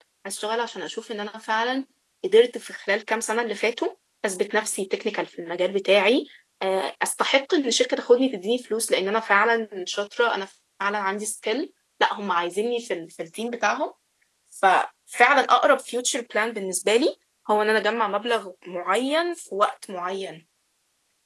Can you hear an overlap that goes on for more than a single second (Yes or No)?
No